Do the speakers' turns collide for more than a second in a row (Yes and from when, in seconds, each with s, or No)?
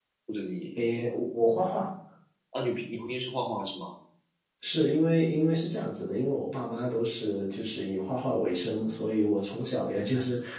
No